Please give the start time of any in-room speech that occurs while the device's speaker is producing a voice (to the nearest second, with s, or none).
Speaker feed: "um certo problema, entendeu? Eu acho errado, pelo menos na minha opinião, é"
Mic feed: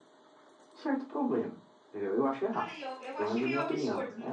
3 s